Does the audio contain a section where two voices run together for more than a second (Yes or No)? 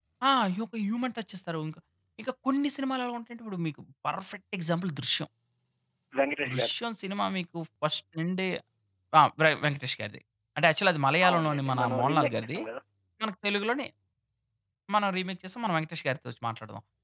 Yes